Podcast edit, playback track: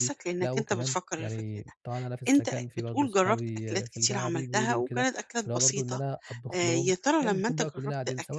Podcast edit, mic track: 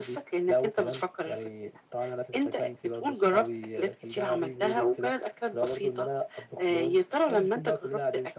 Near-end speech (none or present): none